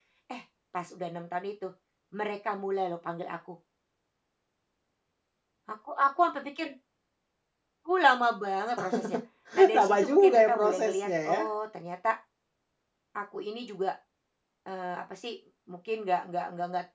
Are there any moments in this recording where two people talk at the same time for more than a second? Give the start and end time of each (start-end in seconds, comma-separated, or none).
9.8-11.4